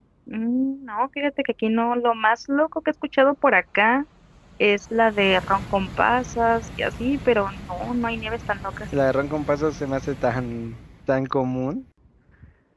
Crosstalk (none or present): none